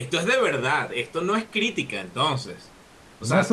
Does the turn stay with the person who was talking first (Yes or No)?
No